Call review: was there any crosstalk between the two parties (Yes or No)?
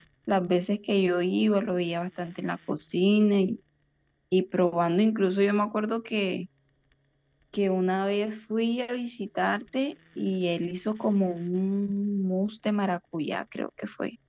No